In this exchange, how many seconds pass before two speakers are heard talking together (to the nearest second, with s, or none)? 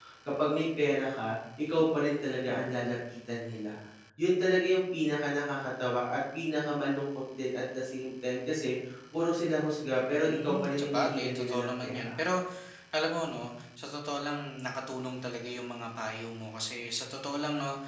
10 s